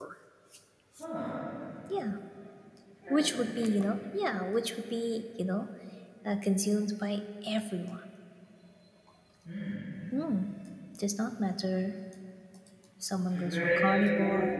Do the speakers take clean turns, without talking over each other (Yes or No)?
No